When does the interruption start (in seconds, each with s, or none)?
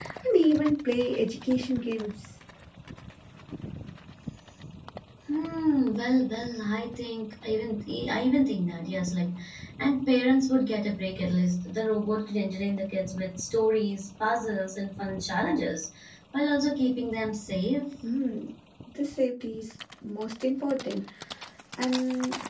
none